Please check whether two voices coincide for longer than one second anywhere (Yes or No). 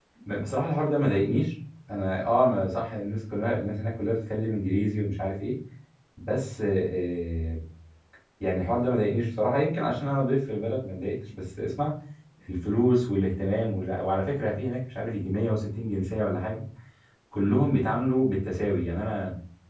No